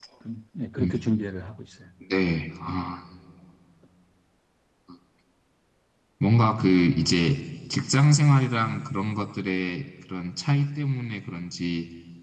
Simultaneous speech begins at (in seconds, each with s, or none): none